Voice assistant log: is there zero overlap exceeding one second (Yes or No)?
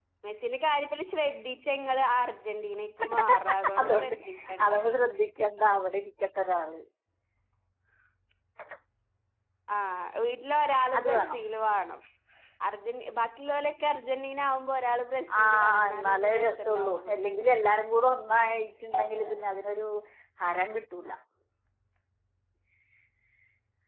No